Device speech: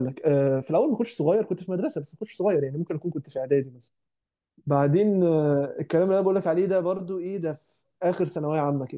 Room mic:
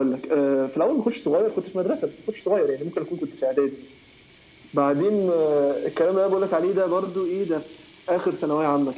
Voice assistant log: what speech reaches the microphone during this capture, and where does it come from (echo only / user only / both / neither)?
echo only